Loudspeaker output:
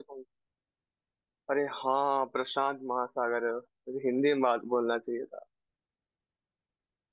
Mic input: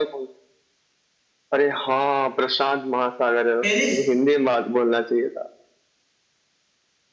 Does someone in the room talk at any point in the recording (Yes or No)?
Yes